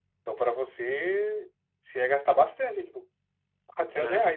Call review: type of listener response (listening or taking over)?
listening